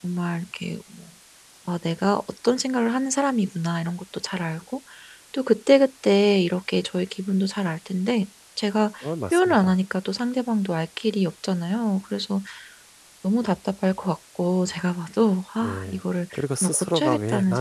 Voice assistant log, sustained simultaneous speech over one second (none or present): present